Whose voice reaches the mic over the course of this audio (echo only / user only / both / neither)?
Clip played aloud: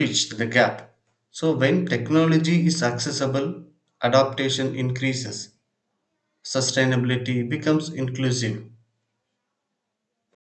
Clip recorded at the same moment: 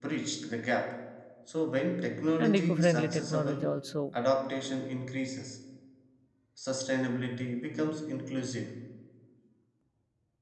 both